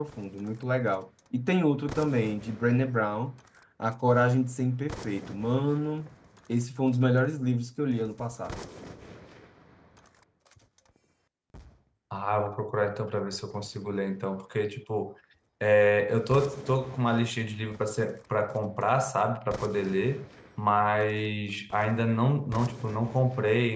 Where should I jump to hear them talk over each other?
none

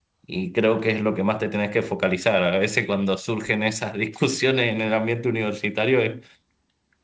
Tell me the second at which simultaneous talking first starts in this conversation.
none

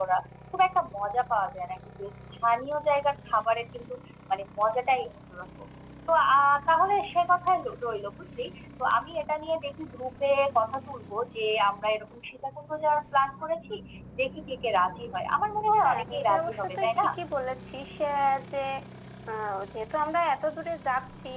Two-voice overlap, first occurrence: 15.8 s

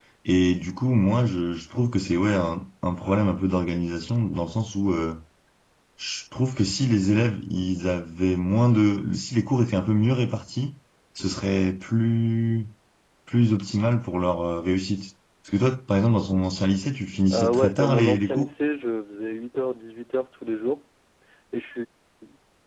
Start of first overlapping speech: 17.3 s

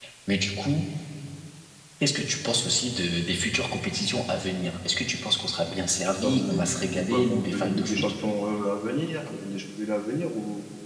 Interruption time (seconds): 6.2 s

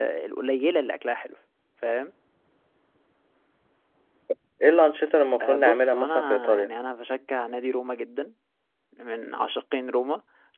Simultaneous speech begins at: 5.4 s

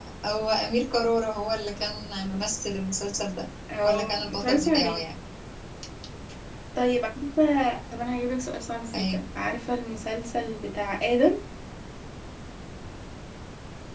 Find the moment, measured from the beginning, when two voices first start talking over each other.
3.8 s

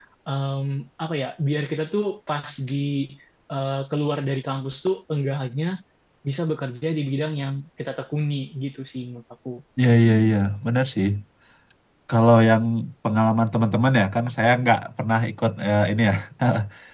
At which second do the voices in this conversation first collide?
none

